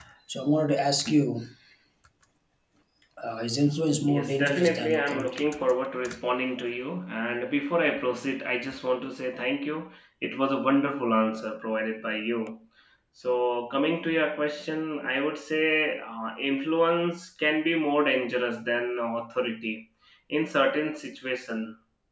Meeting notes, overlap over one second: present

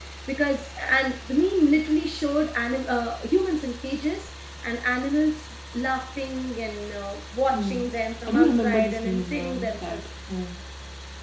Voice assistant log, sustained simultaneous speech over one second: present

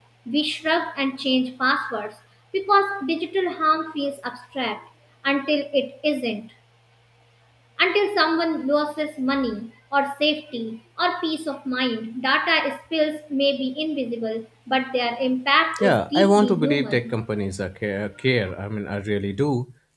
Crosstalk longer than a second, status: present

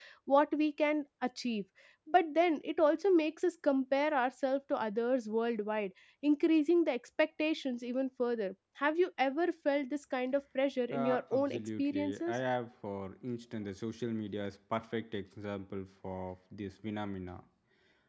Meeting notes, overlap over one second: present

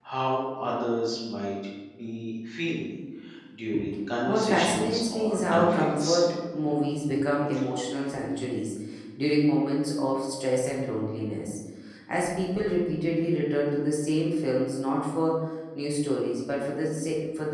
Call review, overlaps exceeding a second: present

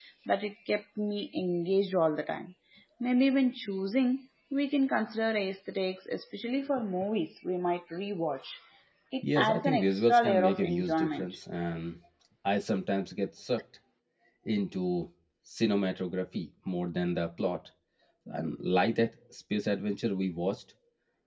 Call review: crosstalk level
present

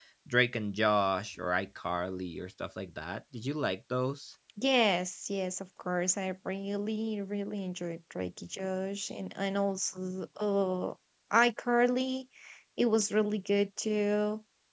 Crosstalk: none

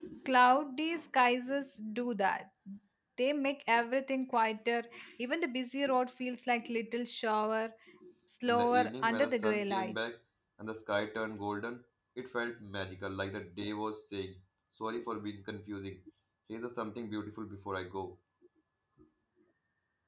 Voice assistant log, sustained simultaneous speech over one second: present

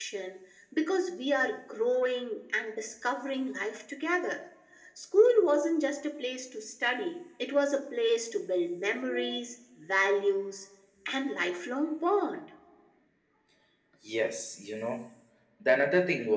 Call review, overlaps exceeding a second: none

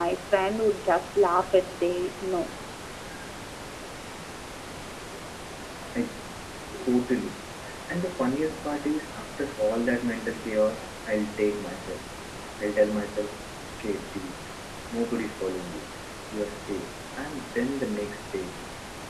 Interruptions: none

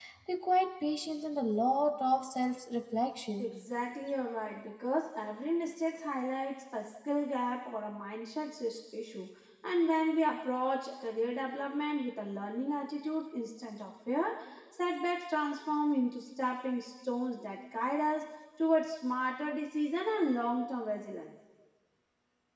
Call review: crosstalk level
none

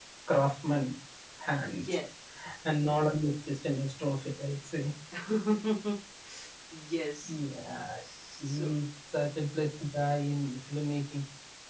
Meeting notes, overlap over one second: none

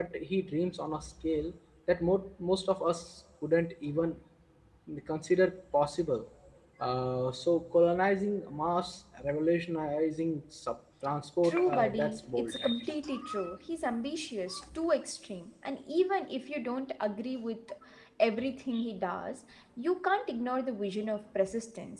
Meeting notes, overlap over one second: present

